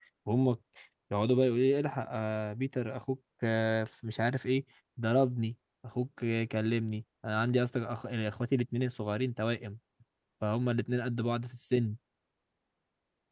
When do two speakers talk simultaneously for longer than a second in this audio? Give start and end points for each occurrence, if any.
none

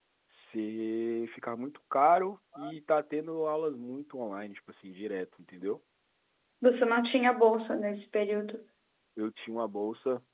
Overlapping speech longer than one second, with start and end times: none

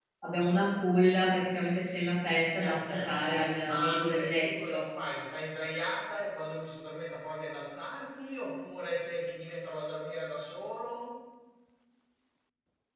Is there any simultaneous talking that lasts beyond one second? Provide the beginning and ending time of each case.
2.6-4.8

